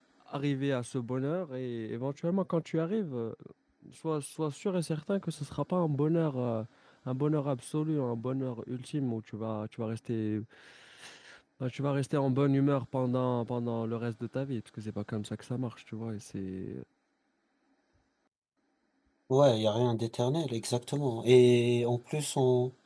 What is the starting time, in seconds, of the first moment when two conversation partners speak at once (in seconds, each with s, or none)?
none